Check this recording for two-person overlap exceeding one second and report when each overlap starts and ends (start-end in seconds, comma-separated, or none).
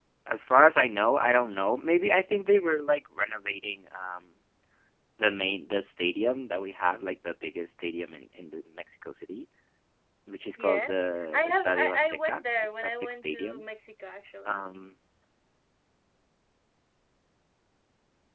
11.3-13.6